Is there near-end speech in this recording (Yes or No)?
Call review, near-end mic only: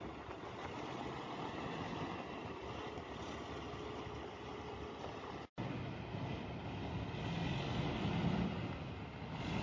No